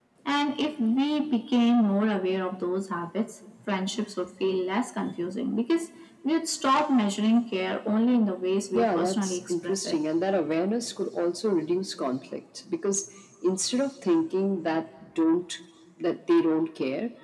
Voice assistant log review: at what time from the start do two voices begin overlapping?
8.7 s

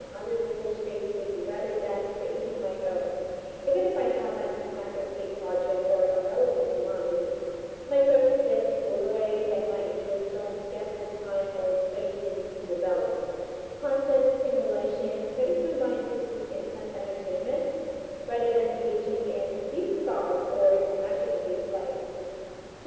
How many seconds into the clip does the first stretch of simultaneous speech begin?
none

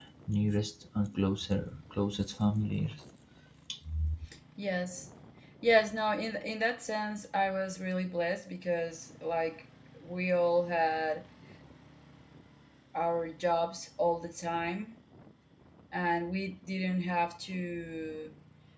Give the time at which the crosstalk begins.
none

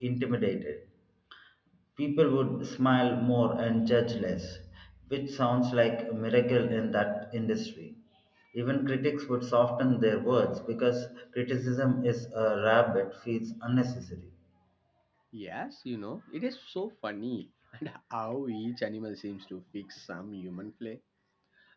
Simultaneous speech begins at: none

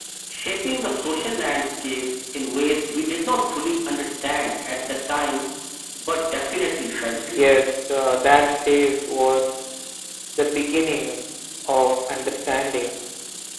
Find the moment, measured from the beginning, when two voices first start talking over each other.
none

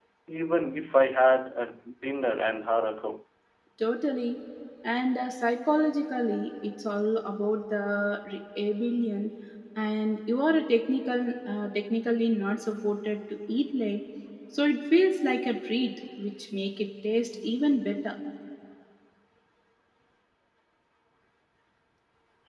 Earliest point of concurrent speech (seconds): none

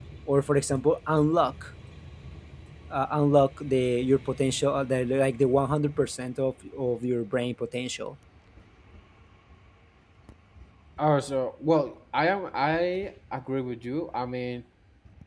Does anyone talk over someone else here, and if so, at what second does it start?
none

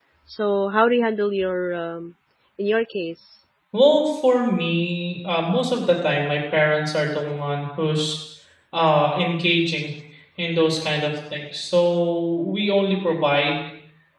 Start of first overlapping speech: none

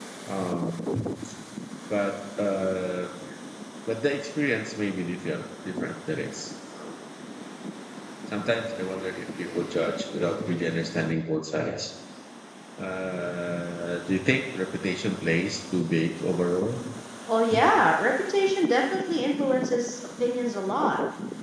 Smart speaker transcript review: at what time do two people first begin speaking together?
none

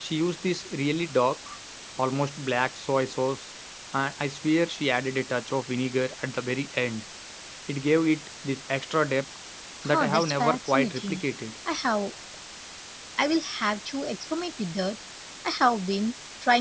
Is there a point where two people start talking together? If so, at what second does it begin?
9.8 s

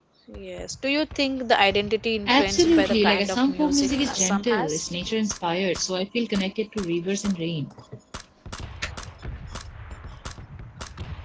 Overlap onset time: 2.3 s

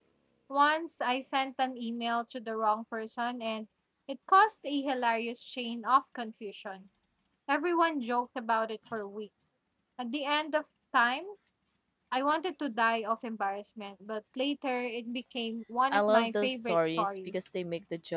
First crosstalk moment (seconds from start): 15.9 s

